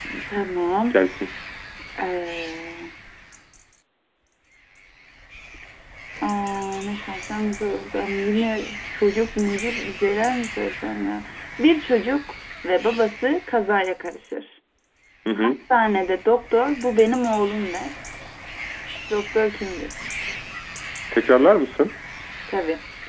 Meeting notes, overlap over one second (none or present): none